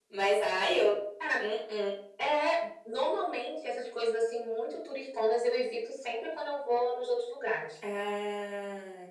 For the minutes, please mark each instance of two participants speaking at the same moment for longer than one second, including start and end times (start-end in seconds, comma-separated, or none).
none